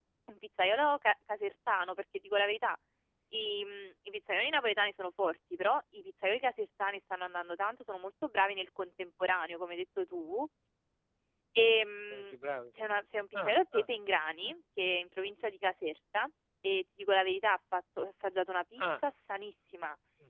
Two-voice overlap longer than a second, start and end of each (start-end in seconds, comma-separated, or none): none